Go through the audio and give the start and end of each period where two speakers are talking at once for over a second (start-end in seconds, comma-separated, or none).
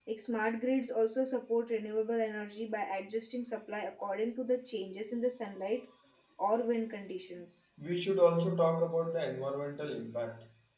none